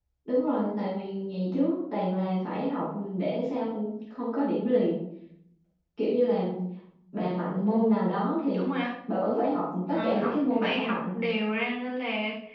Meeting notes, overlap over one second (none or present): present